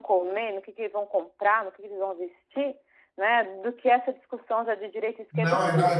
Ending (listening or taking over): taking over